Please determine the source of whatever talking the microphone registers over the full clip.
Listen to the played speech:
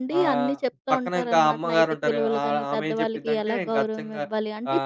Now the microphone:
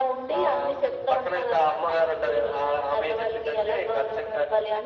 echo only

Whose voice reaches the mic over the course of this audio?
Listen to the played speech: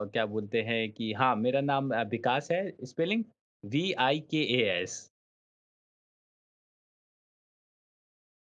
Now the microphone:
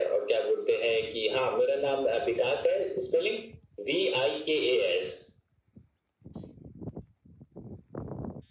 echo only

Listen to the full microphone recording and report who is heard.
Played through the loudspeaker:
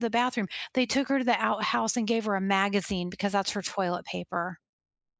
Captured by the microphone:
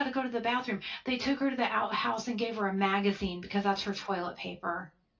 echo only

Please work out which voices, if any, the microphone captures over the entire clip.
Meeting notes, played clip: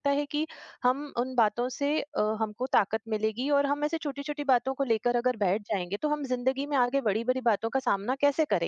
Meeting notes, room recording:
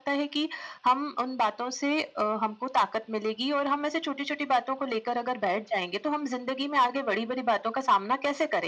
echo only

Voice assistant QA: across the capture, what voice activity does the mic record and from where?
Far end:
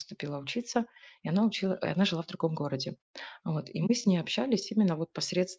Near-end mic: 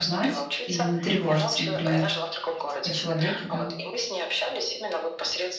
both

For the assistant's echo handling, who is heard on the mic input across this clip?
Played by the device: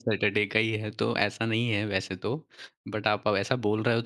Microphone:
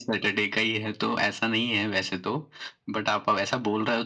echo only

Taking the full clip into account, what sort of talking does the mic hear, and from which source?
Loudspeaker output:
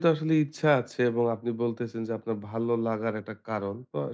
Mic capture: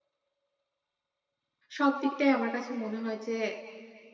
user only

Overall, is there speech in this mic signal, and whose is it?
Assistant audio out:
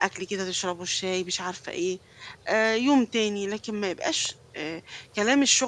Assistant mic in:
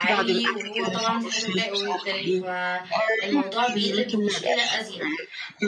both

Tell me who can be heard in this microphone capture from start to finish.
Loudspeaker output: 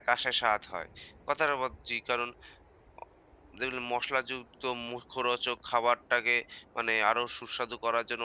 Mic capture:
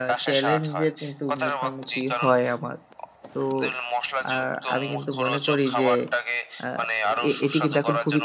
both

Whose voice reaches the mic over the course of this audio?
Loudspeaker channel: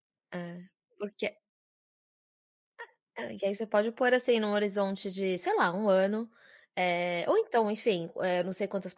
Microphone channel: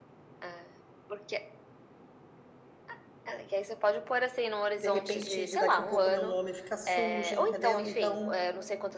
both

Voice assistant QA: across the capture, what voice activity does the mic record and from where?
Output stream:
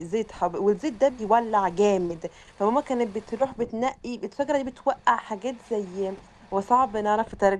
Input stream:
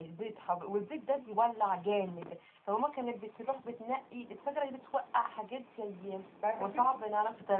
both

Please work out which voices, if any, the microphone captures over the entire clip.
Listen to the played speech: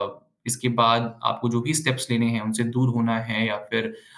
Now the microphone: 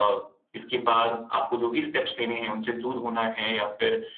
echo only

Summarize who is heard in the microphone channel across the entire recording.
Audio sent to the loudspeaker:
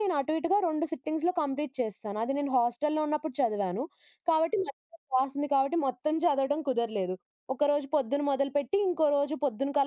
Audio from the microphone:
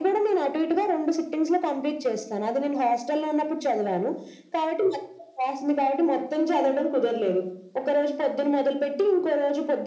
echo only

